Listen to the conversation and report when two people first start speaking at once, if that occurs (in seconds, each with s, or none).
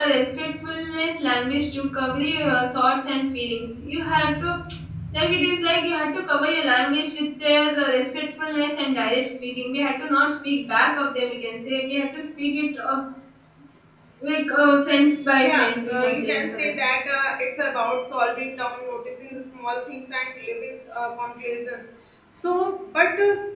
15.4 s